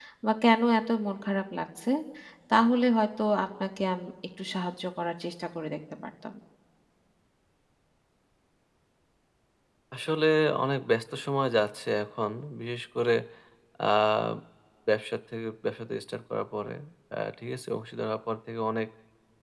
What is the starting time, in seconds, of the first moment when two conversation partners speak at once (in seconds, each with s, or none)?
none